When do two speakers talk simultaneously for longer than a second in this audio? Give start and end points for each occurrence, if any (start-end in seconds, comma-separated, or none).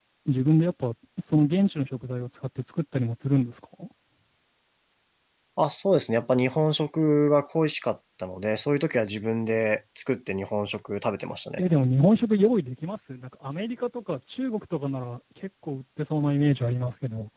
none